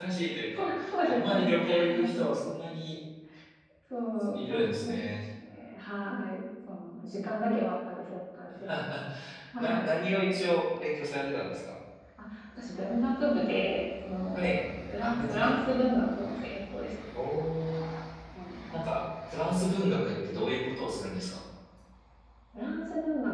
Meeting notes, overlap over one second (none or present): present